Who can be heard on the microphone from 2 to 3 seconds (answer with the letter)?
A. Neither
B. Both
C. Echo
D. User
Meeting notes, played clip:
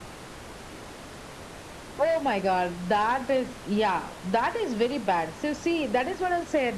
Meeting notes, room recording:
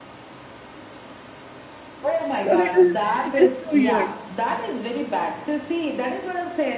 B